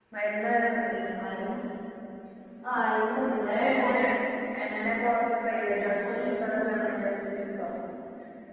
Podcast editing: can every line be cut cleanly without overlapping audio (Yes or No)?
No